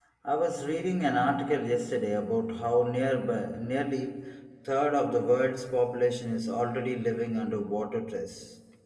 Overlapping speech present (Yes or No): No